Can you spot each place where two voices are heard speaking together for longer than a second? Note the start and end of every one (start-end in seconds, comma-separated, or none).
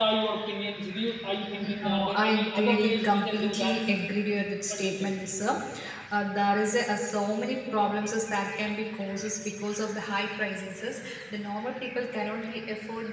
1.6-3.8